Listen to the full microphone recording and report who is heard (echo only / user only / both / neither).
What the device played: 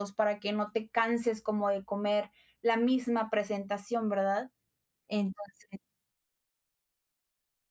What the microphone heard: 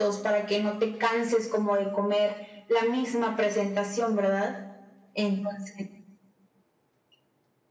echo only